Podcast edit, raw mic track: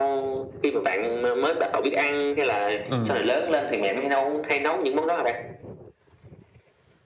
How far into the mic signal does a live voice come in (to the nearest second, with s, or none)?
3 s